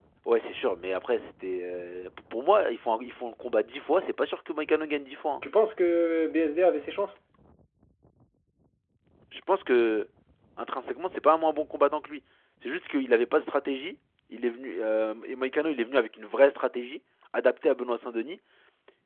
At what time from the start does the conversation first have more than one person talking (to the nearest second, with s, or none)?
none